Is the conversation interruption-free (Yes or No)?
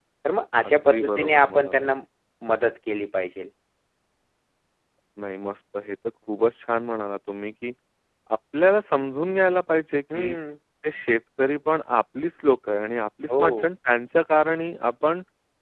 No